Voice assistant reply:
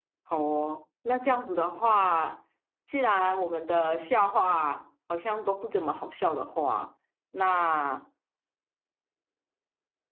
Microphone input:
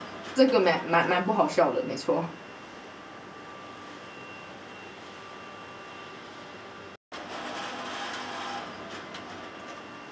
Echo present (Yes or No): No